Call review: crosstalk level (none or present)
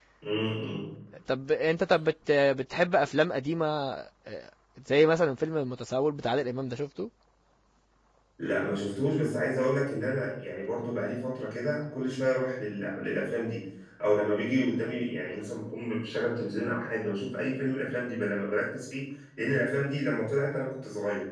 none